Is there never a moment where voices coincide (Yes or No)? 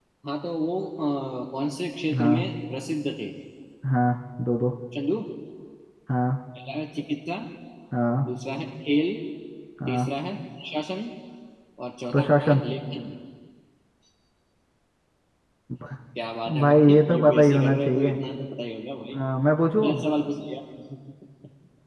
No